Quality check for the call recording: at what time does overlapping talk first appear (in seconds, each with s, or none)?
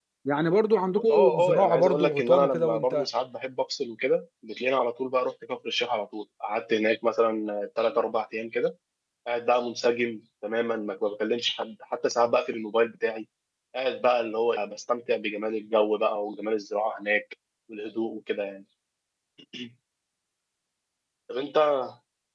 1.1 s